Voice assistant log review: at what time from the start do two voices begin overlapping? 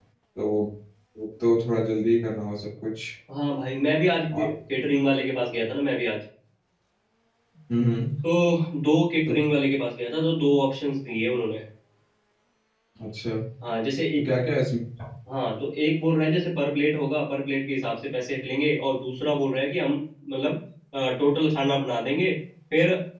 none

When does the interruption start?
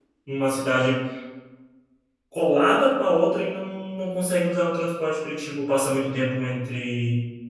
none

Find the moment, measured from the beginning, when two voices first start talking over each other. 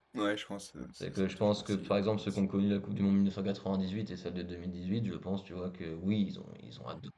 1 s

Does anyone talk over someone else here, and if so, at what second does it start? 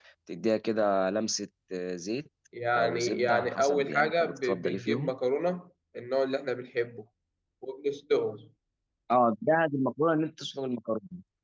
3 s

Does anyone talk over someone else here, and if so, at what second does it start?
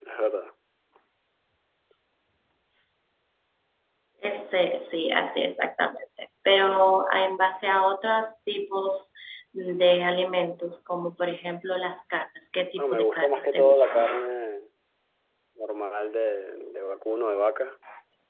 13 s

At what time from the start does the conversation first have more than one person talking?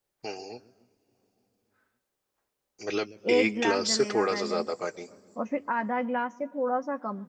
3 s

